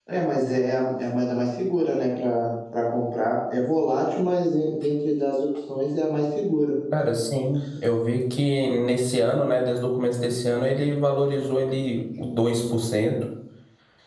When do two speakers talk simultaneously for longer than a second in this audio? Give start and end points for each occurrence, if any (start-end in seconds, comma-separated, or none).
none